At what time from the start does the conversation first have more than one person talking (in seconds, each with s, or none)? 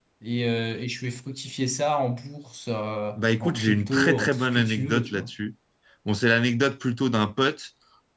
3.2 s